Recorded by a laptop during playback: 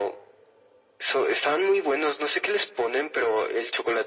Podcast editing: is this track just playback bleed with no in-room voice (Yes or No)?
Yes